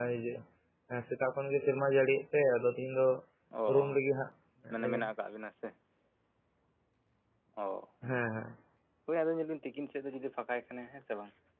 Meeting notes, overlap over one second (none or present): none